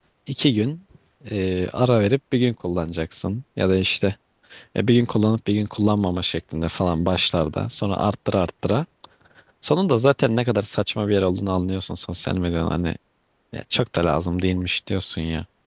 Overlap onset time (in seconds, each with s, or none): none